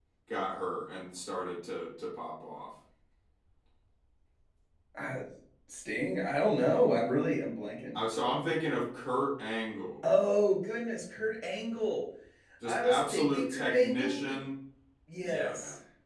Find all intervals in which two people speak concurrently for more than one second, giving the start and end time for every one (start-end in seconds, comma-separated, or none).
12.6-14.3